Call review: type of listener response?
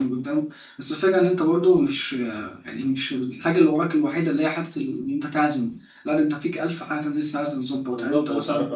taking over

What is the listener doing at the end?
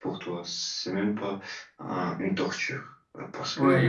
taking over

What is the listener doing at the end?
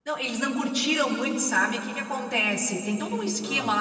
listening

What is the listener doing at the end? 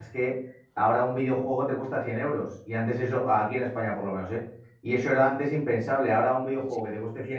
listening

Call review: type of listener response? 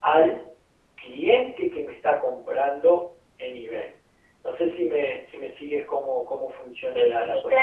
taking over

